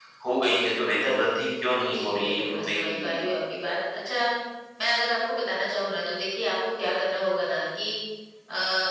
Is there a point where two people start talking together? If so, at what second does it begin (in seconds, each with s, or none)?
1.8 s